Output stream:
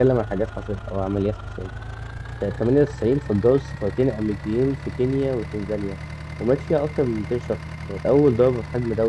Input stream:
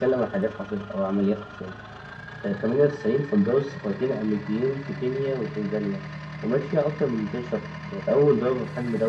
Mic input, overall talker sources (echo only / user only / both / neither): echo only